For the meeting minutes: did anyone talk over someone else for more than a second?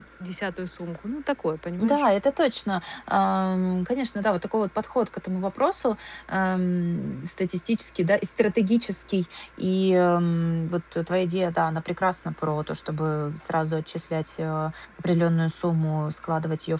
No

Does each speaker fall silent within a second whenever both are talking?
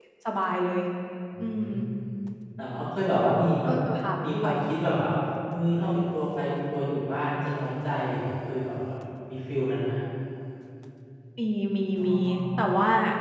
Yes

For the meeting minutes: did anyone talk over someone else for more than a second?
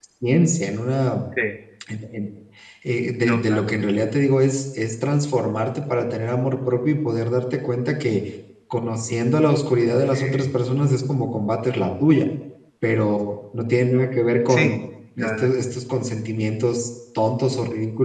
No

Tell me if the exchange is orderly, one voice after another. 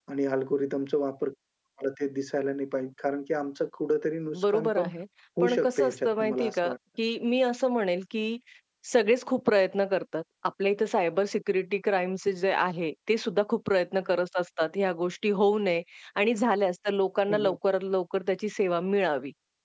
No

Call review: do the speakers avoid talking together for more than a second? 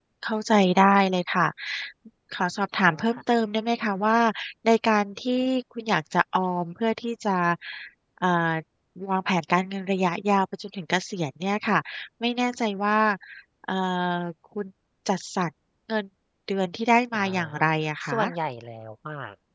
Yes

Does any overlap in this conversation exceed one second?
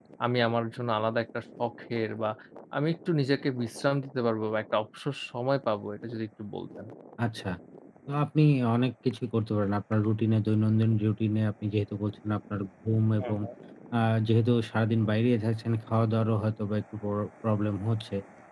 No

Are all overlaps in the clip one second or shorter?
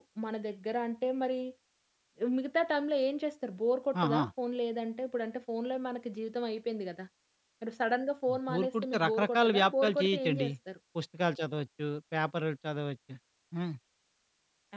No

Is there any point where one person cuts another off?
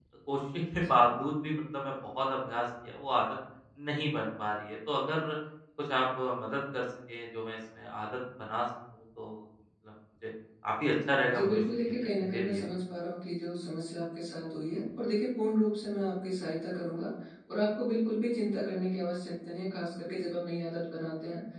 Yes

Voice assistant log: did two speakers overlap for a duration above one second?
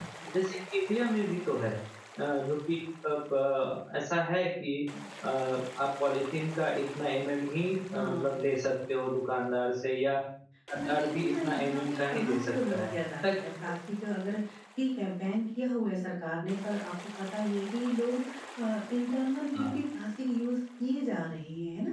Yes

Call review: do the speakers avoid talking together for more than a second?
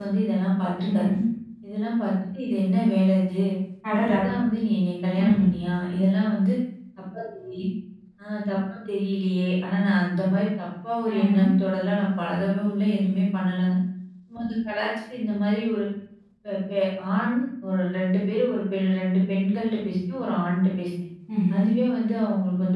Yes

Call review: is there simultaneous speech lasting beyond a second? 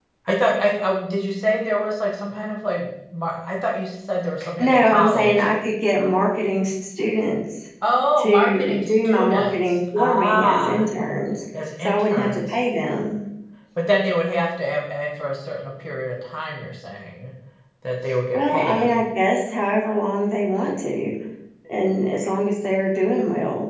Yes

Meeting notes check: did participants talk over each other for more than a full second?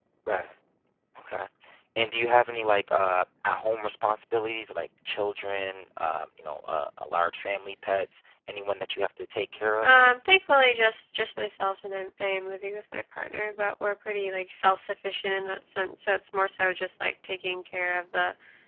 No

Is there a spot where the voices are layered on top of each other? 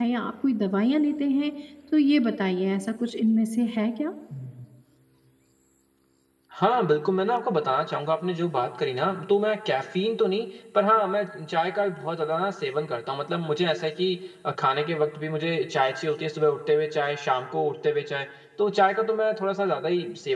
No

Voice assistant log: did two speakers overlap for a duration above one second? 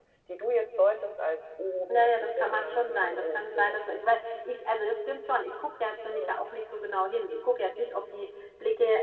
Yes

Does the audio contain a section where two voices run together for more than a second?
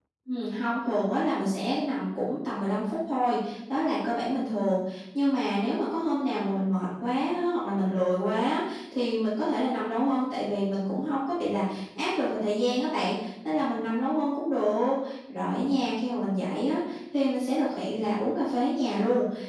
No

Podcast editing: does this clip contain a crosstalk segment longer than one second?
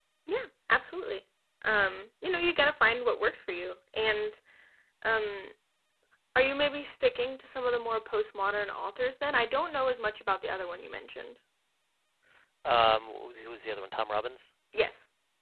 No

